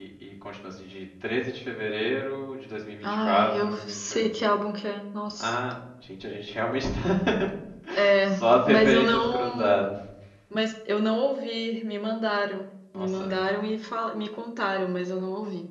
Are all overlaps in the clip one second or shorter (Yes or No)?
No